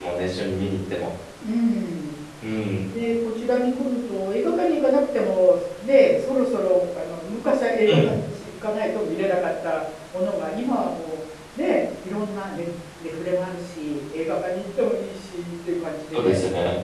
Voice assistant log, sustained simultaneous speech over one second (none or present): none